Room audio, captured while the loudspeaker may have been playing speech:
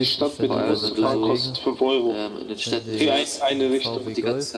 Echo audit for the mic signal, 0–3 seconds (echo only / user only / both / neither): both